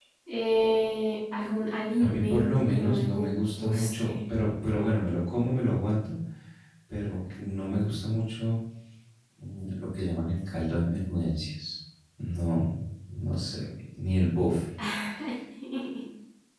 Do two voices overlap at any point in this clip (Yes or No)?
Yes